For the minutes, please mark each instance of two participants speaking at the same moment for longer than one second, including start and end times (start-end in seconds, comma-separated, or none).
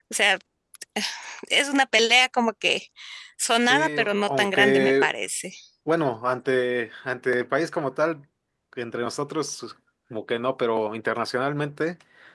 3.6-5.1